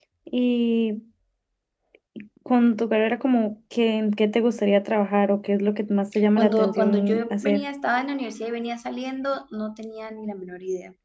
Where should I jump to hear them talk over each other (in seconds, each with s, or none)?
6.4 s